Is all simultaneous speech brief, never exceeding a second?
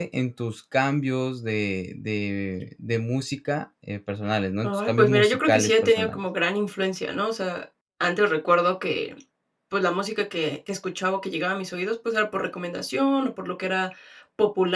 No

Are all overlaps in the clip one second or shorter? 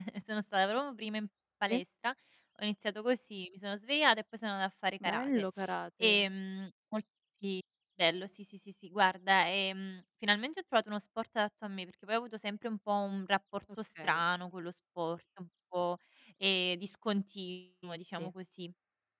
Yes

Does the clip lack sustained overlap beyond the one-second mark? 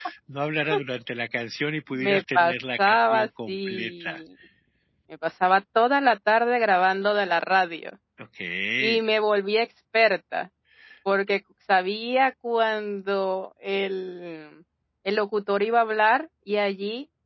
No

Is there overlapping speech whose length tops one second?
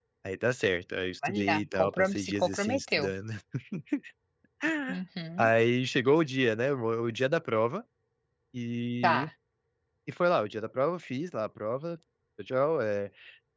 Yes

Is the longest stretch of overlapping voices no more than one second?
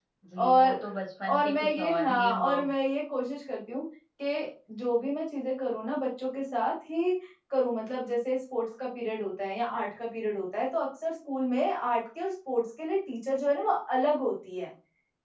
No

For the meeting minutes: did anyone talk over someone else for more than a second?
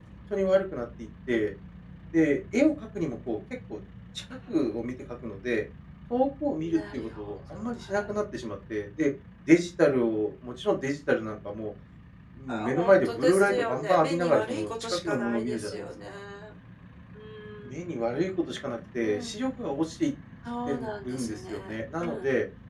Yes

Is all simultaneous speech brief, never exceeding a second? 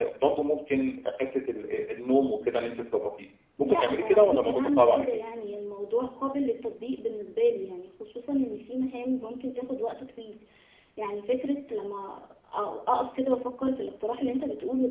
No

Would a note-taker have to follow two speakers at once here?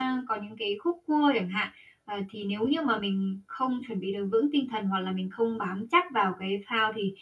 No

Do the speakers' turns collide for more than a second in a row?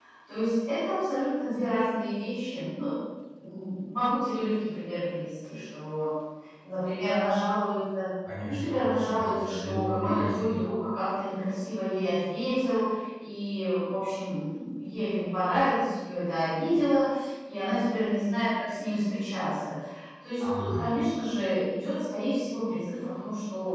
Yes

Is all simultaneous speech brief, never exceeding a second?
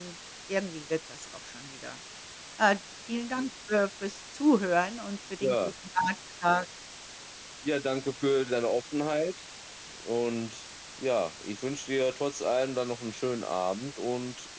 Yes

